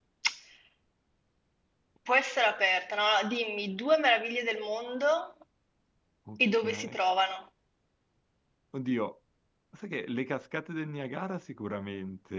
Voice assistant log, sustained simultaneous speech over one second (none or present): none